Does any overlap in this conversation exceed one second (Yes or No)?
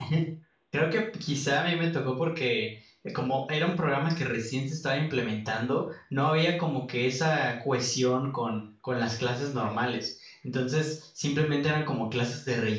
No